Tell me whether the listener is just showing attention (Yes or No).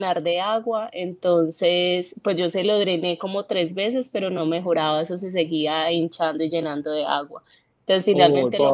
Yes